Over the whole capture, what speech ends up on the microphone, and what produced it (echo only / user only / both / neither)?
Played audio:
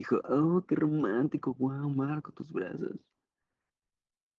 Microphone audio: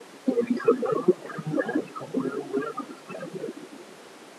echo only